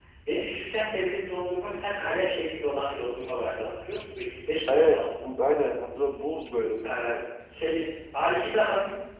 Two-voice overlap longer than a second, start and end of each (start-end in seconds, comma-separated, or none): none